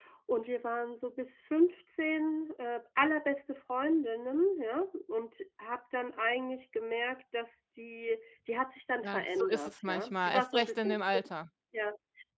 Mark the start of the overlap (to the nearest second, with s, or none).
9 s